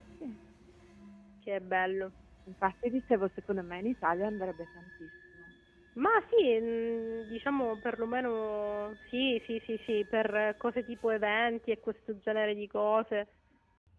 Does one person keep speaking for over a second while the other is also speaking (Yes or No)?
No